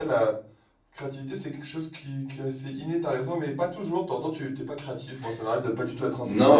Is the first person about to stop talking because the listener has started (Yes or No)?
Yes